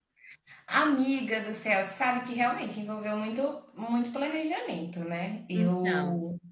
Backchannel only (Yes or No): Yes